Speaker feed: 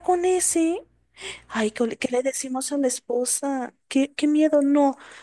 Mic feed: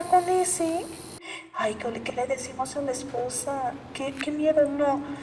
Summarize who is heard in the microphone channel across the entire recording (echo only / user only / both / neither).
echo only